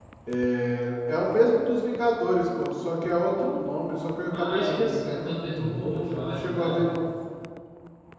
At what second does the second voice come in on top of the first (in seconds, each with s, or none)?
4.3 s